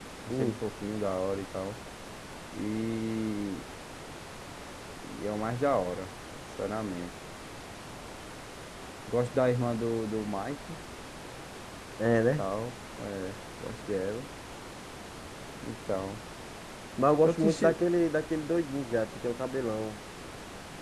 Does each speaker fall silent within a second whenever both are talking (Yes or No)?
Yes